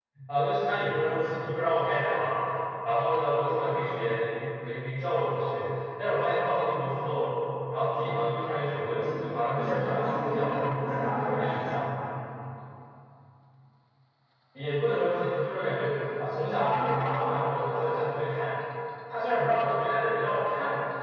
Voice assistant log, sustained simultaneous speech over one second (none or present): present